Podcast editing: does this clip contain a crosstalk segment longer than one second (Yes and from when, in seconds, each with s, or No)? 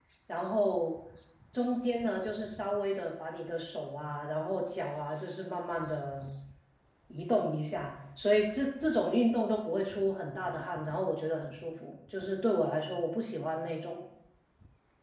No